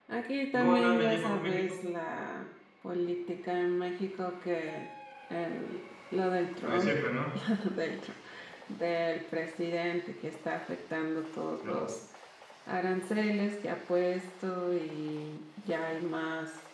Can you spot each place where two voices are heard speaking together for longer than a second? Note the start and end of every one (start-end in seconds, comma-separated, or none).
0.5-1.8